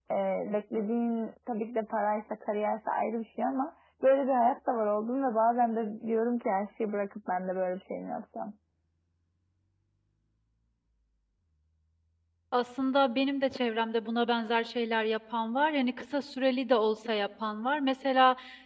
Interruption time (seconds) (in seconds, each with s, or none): none